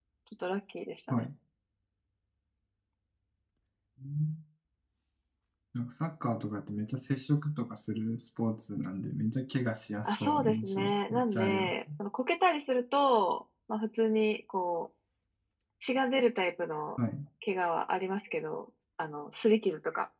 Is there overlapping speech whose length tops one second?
Yes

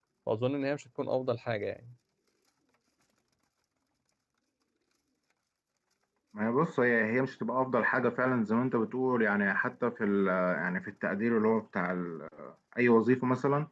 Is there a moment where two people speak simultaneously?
No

